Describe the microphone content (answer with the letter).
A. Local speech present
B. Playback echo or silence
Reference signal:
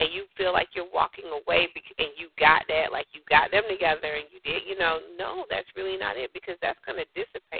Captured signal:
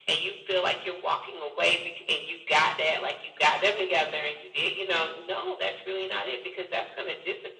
B